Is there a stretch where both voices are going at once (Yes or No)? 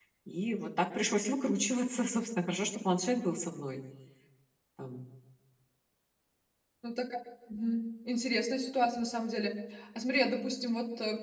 No